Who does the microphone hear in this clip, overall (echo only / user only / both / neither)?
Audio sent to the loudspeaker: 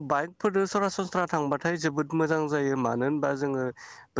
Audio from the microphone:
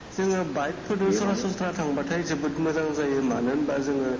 both